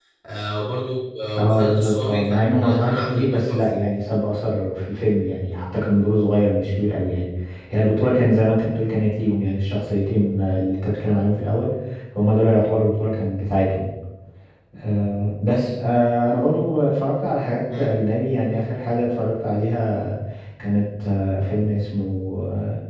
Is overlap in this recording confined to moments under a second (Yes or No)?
No